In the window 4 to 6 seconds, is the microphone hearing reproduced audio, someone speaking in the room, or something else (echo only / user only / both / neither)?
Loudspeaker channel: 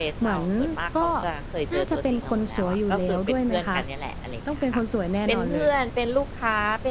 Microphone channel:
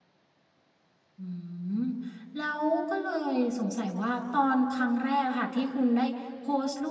user only